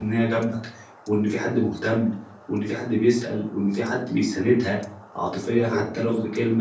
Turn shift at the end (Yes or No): No